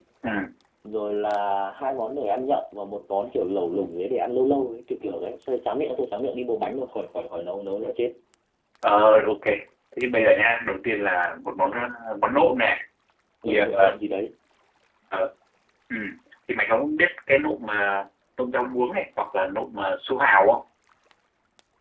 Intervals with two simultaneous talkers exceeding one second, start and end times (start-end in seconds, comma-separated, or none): none